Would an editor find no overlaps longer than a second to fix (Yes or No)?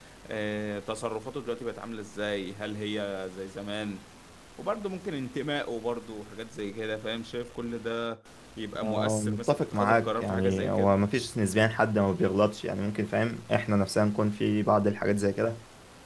No